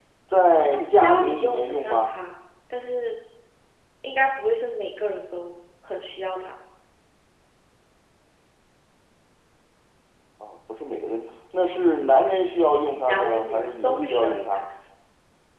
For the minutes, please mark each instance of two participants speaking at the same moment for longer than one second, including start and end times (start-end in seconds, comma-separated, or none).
0.7-2.1, 12.9-14.6